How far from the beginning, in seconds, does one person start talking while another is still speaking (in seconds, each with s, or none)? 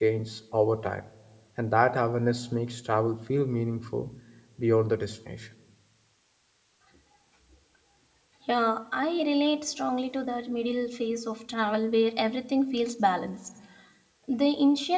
none